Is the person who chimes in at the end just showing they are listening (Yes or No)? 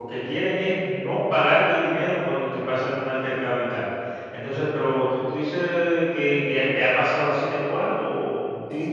No